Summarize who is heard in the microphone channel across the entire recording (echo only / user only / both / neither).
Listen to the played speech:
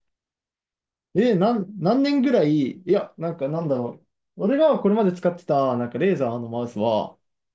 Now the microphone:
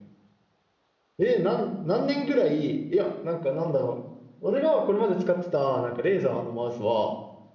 echo only